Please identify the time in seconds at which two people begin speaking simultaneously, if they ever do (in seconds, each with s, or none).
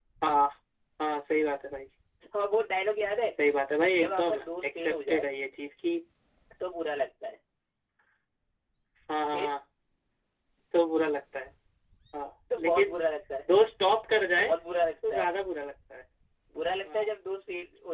4.0 s